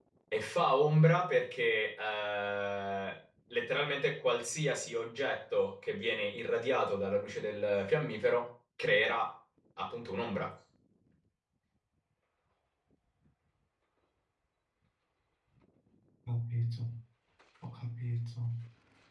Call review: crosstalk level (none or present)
none